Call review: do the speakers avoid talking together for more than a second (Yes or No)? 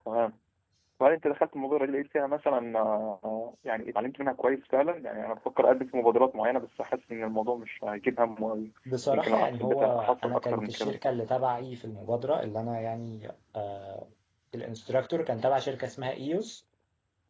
No